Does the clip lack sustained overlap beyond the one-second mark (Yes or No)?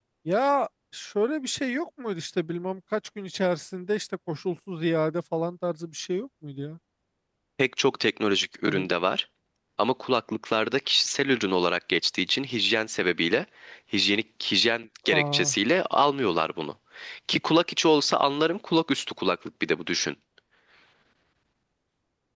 Yes